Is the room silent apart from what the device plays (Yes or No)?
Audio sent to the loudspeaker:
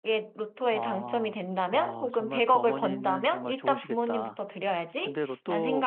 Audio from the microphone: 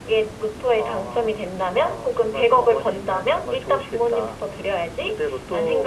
Yes